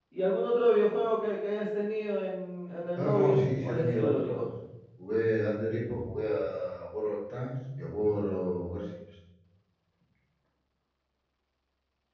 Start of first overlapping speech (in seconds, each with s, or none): 3.0 s